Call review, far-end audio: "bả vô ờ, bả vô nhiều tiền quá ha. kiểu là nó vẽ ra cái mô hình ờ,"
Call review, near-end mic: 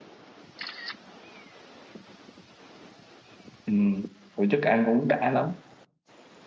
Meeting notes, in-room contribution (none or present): present